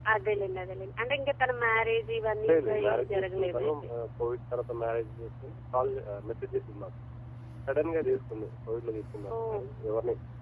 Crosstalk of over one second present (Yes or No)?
Yes